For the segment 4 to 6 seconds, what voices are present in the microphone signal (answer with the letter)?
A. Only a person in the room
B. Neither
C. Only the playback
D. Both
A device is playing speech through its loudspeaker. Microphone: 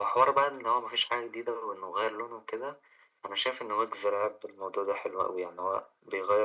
C